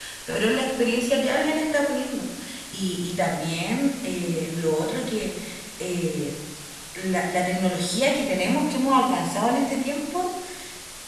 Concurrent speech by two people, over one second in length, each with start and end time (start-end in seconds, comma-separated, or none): none